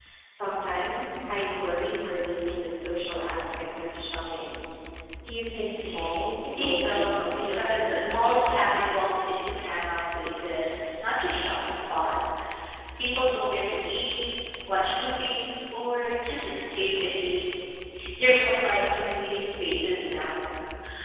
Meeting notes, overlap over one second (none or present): present